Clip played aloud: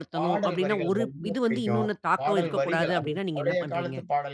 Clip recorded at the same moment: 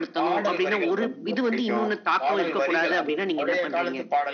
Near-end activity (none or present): none